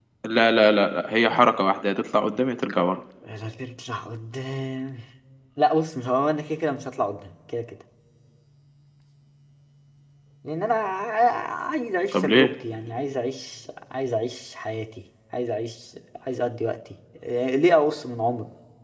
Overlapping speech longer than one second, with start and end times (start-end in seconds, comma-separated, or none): none